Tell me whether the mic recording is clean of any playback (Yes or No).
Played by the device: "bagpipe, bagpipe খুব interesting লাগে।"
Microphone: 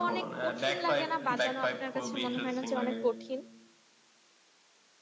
No